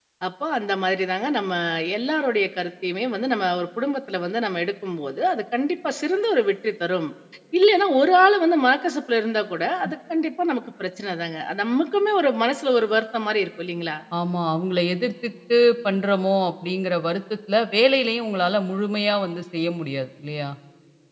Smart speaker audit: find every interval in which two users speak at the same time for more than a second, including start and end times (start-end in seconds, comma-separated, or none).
none